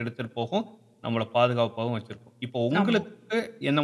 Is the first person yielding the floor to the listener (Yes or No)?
No